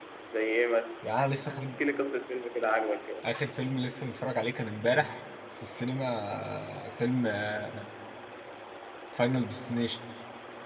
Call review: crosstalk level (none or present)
none